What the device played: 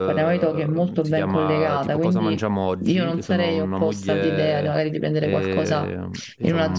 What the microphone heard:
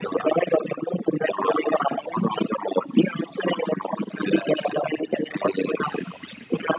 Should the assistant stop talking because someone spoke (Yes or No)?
No